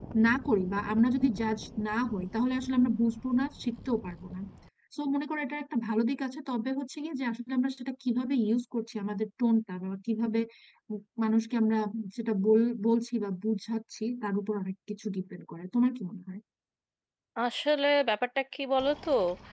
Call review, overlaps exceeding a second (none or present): none